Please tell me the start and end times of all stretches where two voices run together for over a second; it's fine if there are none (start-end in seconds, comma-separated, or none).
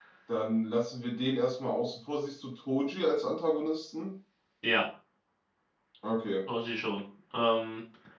none